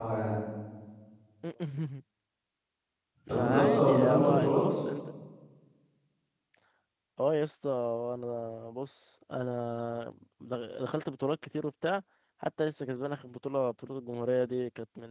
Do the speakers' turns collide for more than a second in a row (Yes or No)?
Yes